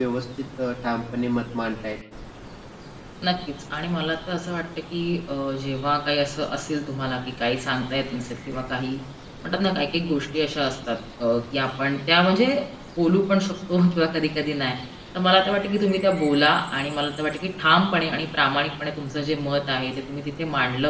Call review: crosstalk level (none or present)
none